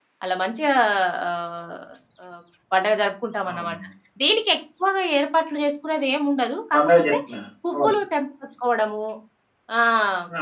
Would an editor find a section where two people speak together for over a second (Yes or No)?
No